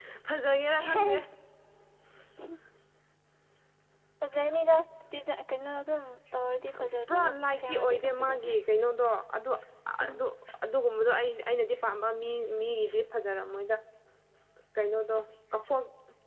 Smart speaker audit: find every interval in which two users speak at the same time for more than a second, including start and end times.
7.1-8.5

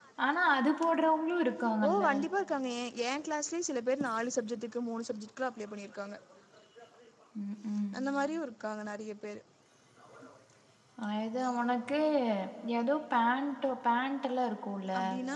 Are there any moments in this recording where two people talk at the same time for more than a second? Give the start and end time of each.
none

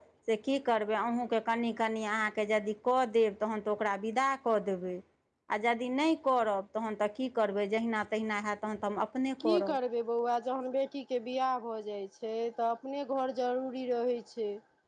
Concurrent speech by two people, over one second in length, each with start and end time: none

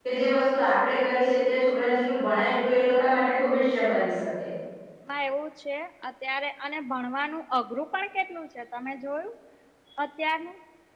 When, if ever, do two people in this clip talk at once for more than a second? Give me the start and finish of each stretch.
none

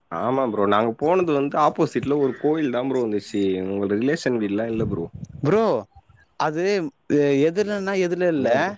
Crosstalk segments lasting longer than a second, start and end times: none

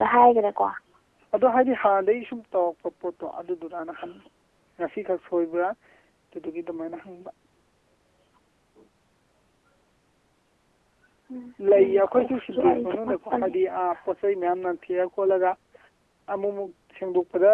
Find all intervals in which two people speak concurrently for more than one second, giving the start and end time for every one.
11.7-13.5

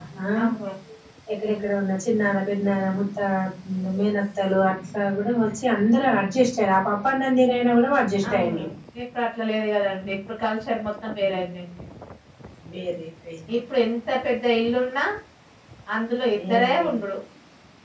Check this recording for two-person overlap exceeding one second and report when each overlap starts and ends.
none

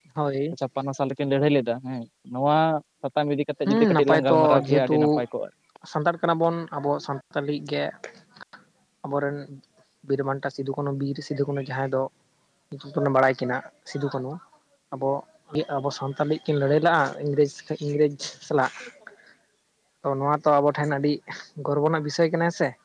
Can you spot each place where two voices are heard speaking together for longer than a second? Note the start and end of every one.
3.7-5.0

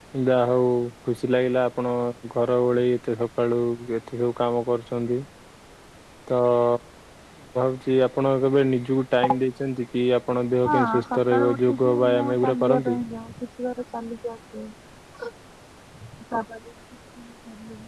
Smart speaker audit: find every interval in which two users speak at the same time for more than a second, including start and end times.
10.7-13.0

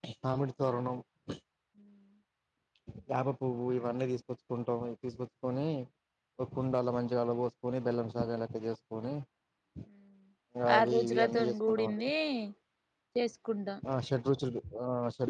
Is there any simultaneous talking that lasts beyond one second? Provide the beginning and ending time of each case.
10.8-12.0

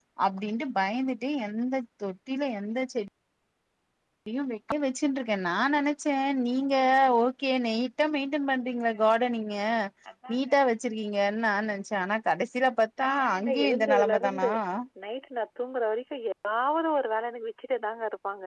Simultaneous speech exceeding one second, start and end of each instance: 13.0-14.5

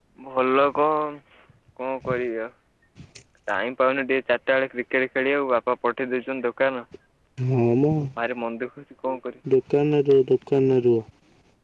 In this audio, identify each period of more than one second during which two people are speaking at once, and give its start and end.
none

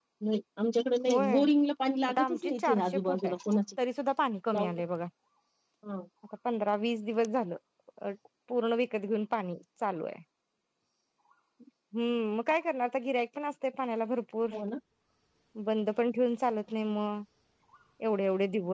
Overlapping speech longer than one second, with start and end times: 2.1-3.4

